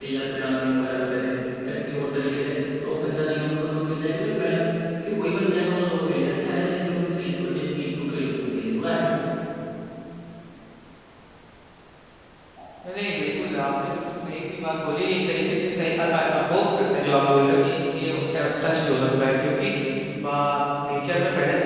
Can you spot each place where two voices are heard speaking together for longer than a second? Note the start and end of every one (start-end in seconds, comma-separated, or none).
none